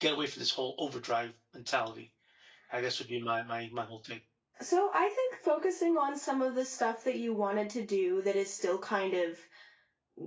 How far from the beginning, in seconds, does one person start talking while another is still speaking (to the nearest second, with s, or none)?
none